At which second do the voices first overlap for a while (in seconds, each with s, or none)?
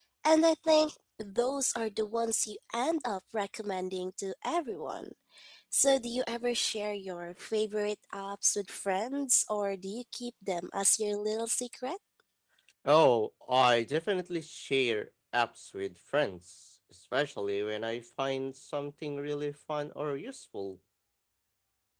none